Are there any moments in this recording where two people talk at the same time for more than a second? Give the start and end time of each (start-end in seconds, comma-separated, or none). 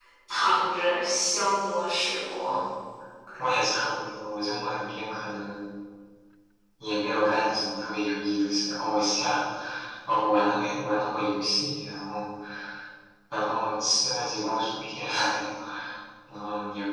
none